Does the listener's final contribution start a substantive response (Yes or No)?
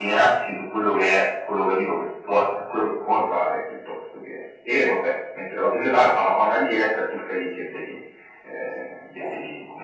No